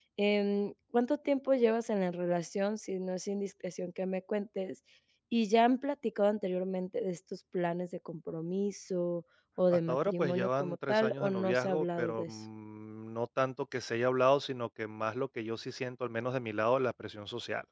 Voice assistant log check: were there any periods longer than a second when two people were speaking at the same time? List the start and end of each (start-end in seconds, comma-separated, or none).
9.7-12.4